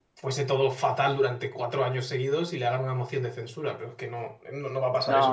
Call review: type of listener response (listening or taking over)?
taking over